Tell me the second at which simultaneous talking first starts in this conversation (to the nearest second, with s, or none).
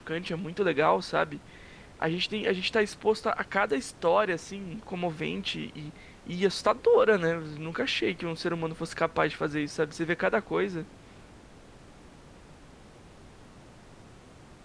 none